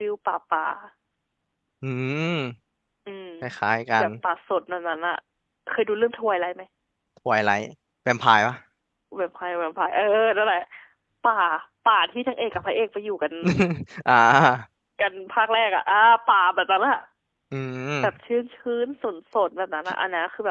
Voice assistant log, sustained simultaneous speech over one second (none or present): none